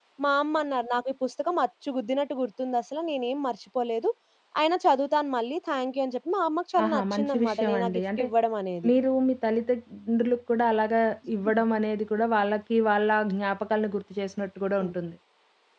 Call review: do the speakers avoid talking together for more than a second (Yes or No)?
No